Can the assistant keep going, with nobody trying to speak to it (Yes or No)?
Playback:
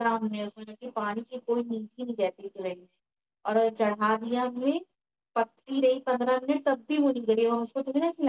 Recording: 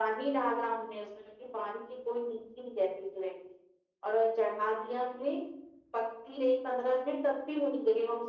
Yes